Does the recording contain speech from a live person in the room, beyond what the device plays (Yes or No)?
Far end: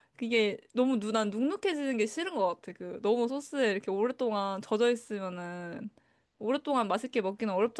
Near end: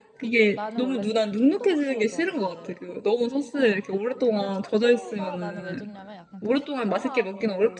Yes